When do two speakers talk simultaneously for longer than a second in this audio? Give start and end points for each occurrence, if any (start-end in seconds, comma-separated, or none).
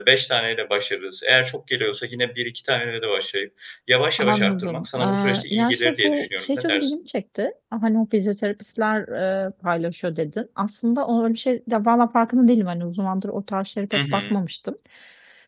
4.2-7.0